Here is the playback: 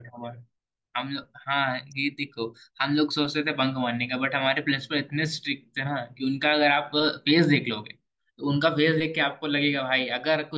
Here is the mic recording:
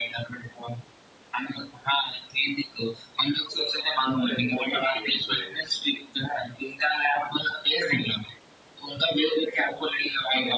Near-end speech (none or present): present